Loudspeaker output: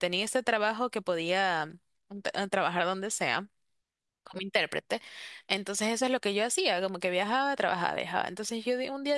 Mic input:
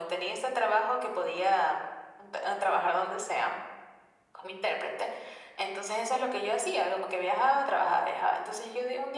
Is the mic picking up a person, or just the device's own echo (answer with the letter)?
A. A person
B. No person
B